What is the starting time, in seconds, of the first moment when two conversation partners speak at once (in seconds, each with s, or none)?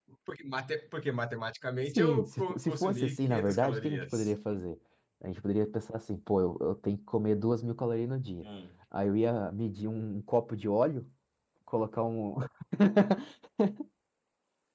1.9 s